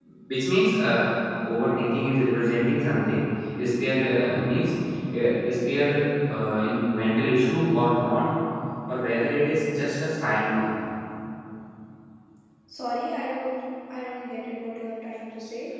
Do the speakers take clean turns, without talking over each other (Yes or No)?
Yes